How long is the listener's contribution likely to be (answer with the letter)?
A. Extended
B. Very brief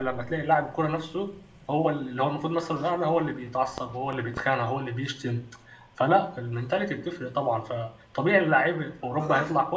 A